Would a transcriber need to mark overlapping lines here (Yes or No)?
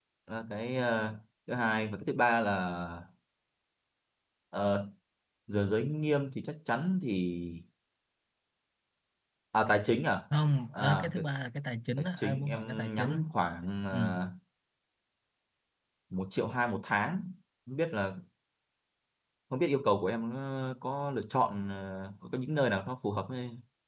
Yes